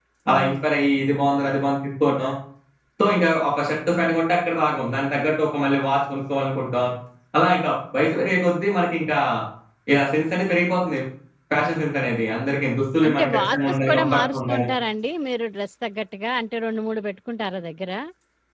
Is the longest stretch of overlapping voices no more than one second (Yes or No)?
No